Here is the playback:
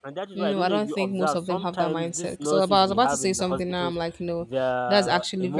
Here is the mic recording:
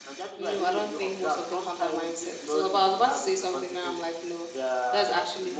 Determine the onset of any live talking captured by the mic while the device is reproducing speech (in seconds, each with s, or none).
none